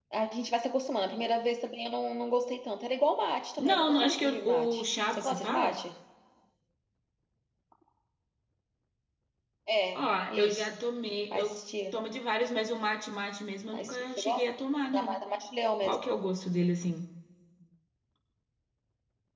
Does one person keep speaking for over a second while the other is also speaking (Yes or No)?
Yes